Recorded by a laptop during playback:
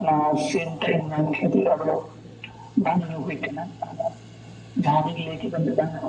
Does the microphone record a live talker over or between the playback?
No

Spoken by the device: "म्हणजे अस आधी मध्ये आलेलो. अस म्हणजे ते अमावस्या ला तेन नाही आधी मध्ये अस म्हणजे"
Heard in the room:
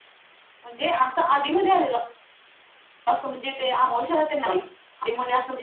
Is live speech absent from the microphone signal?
Yes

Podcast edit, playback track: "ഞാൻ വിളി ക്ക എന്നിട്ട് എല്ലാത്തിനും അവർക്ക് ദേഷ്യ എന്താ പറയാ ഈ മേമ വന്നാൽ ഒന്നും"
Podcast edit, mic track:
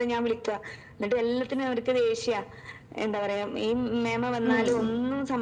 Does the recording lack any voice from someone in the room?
No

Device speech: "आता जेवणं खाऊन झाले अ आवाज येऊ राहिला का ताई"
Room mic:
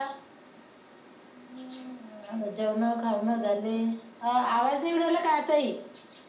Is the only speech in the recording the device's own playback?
Yes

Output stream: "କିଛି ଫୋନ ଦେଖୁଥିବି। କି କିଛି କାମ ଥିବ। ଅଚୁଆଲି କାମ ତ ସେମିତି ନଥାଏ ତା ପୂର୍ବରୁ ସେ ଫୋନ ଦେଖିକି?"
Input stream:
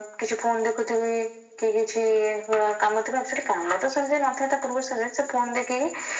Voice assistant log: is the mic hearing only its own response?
Yes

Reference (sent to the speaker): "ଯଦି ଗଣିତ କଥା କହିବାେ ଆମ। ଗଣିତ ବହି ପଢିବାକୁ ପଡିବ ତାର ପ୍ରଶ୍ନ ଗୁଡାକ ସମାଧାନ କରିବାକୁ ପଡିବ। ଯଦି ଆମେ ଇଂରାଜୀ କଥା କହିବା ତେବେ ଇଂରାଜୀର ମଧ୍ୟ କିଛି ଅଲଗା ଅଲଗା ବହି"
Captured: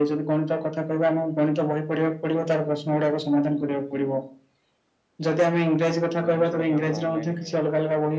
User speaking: Yes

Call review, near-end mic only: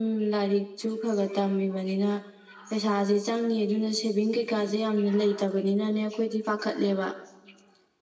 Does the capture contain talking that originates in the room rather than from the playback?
No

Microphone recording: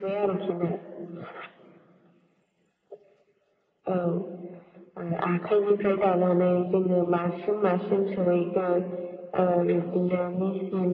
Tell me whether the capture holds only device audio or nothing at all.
Yes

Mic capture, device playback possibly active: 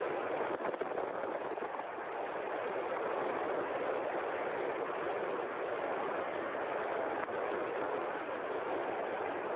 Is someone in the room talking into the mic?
No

